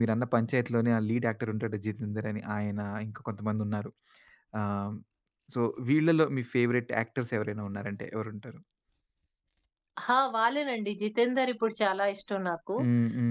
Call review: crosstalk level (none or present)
none